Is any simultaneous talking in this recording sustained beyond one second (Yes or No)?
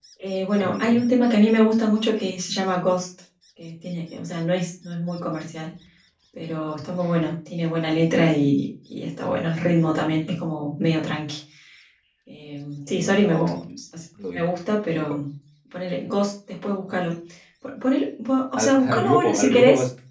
Yes